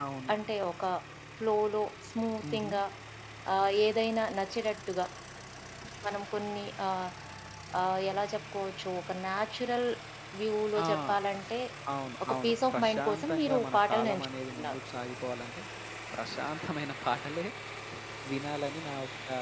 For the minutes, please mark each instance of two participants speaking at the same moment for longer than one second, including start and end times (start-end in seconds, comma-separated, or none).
12.2-14.8